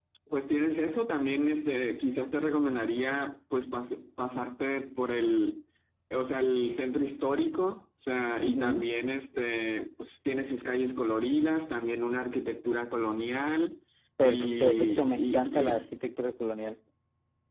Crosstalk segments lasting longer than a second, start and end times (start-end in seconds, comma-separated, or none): 14.2-15.8